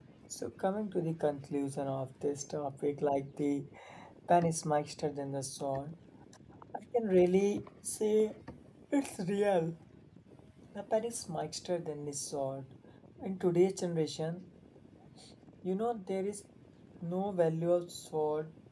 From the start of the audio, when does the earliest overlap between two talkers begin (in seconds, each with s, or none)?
none